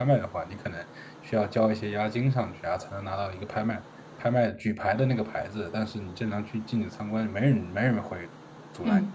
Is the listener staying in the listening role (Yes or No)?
No